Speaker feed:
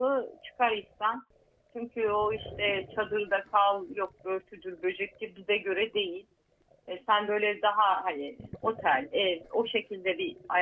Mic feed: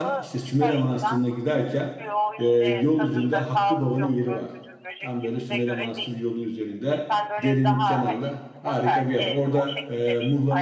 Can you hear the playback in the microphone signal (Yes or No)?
Yes